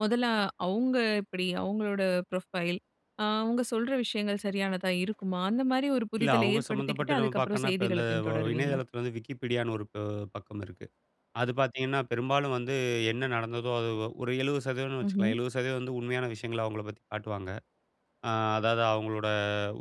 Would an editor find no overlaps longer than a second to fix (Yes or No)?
No